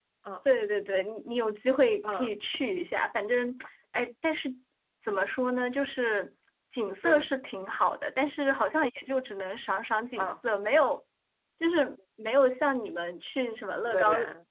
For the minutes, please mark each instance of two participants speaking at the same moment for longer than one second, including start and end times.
none

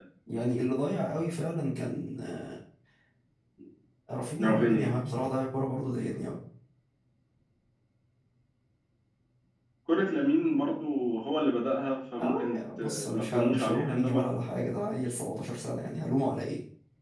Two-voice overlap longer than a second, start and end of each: 12.2-14.2

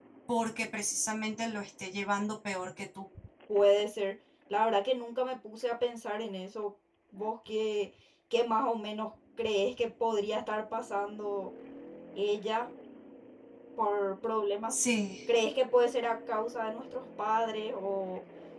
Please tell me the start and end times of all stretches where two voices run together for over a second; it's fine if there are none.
none

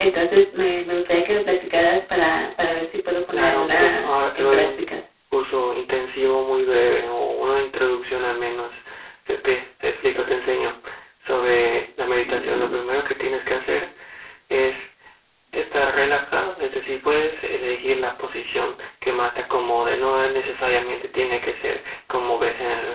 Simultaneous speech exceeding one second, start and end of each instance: 3.3-4.9

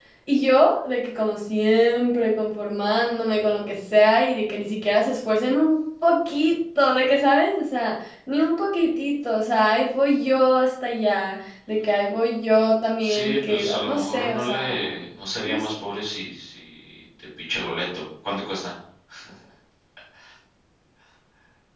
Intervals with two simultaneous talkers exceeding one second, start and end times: 13.0-14.9

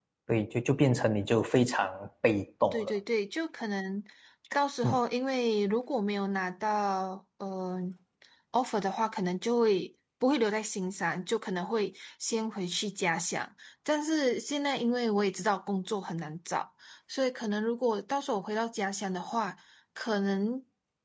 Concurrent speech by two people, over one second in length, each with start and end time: none

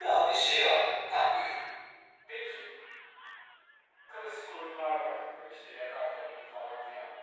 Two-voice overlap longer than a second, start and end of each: none

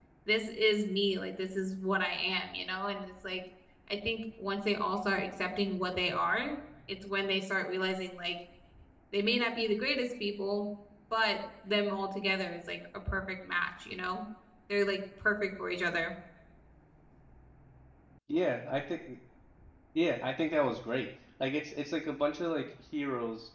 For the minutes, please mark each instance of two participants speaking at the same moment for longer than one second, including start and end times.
none

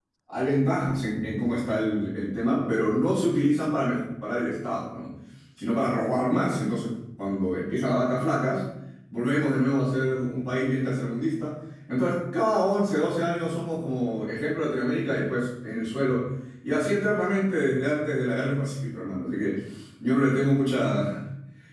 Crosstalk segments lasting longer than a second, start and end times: none

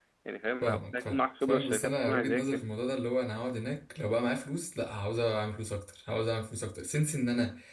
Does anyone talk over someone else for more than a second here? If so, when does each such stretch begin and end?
0.6-2.6

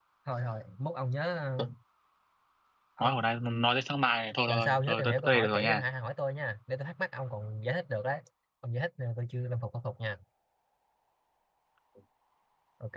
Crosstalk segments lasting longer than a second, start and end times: 4.5-5.8

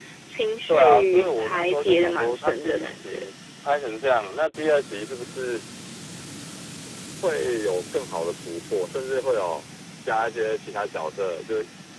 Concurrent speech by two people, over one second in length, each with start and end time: 0.7-3.3

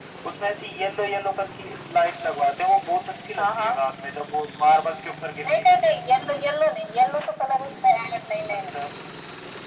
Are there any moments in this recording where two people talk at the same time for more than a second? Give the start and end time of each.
none

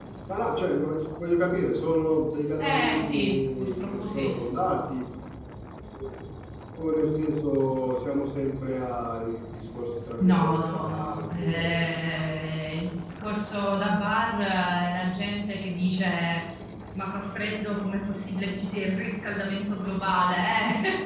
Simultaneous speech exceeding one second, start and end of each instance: 2.6-4.3, 10.2-11.9

